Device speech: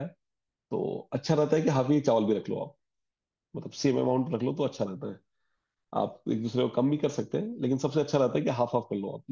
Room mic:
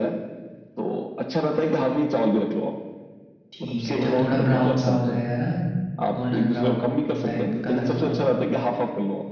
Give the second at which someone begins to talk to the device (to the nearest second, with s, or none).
4 s